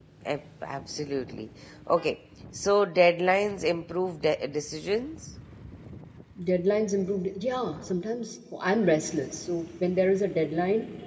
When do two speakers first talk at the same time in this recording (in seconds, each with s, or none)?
none